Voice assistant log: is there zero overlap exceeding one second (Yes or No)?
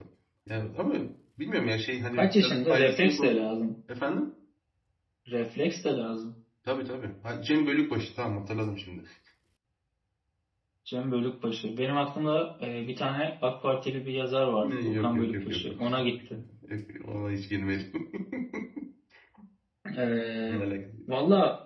No